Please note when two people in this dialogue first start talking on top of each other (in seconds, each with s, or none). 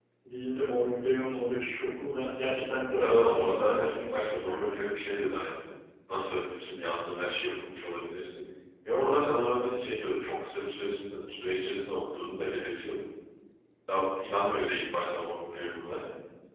2.9 s